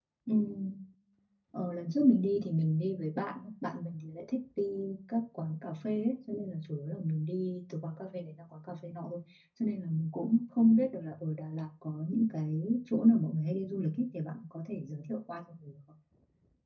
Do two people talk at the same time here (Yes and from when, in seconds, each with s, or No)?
No